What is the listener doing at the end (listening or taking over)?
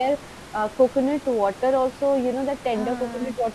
listening